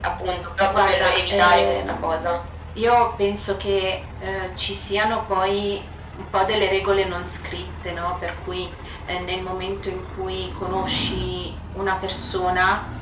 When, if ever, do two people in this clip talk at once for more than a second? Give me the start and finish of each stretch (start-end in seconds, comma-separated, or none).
0.7-2.4